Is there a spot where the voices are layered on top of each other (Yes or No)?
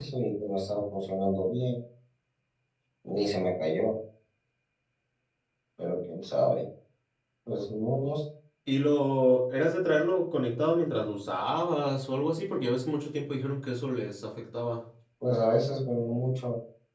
No